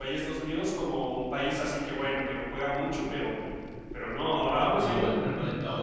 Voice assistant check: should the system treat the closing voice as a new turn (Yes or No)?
Yes